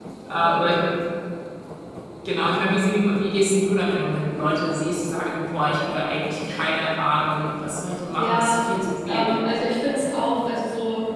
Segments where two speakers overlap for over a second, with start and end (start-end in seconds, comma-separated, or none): none